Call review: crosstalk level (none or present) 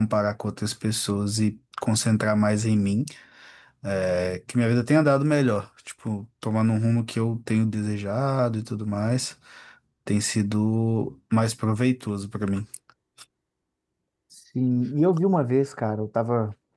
none